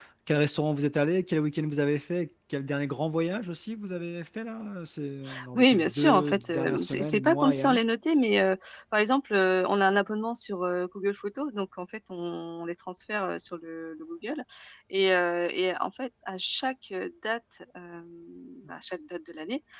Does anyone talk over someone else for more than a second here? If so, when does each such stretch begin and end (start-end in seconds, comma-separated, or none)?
5.5-7.8